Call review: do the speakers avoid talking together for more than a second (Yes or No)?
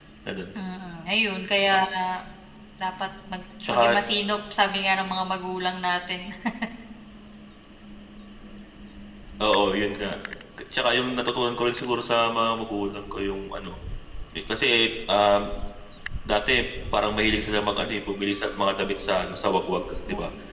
Yes